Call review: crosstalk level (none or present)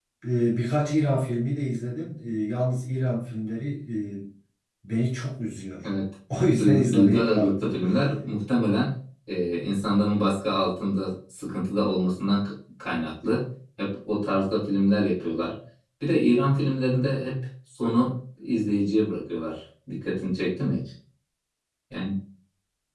present